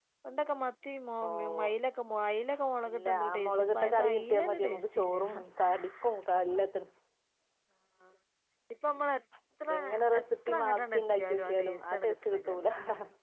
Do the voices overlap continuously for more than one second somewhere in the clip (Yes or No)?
Yes